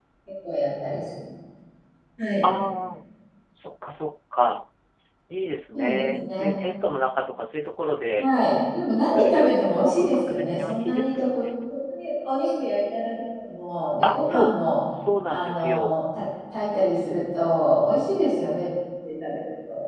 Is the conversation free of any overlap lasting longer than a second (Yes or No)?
No